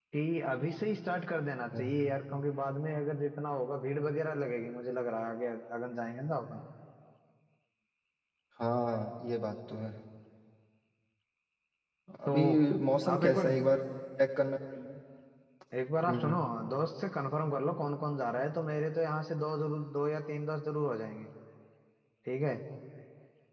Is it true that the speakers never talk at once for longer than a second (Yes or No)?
Yes